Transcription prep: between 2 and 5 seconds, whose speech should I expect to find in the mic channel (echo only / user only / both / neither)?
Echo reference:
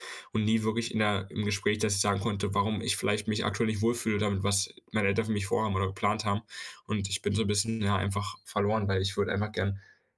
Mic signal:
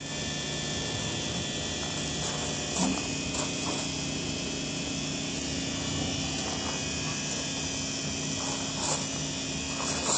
neither